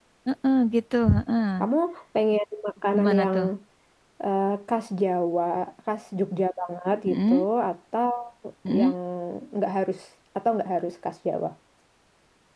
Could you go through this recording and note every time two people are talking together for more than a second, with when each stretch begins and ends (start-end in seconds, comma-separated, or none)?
none